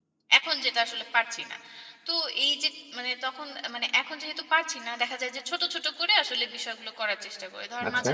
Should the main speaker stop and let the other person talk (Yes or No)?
No